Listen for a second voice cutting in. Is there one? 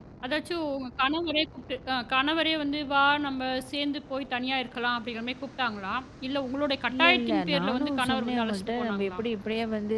Yes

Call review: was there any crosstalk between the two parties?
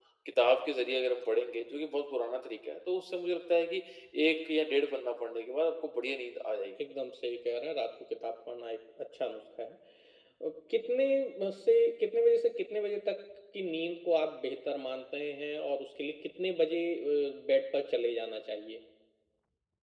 No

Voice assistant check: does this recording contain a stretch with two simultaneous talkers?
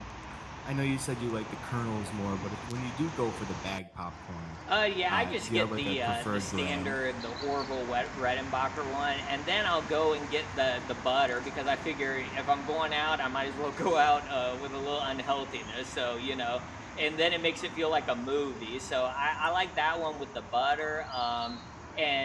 Yes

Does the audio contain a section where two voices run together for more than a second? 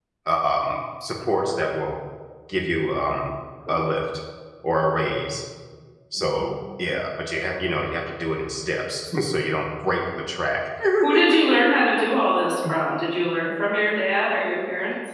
No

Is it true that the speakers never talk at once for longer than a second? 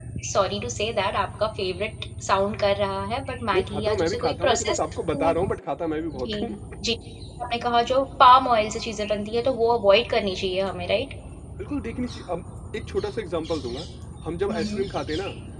No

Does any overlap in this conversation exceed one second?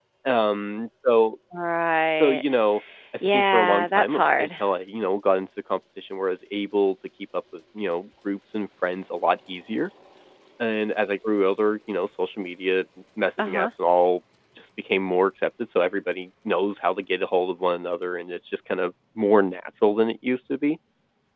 Yes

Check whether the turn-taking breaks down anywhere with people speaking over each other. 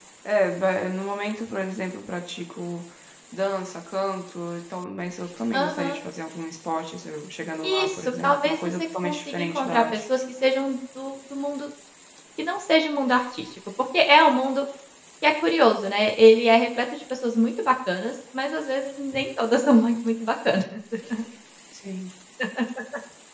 Yes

